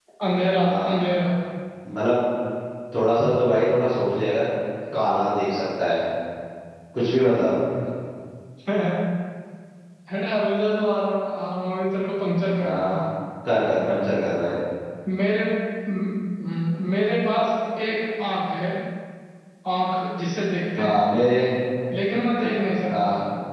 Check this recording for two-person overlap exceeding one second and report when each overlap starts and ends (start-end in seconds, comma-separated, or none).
none